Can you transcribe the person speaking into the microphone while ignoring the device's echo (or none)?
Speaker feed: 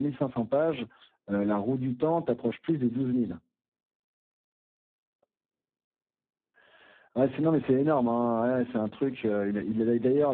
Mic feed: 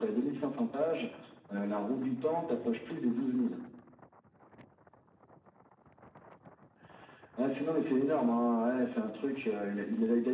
none